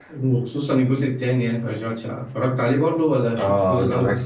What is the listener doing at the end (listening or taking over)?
taking over